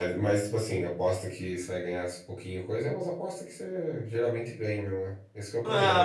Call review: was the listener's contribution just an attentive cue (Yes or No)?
No